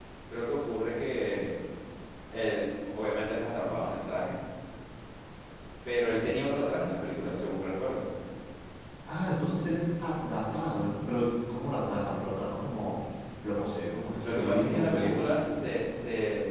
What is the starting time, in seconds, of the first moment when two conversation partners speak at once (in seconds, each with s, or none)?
14.2 s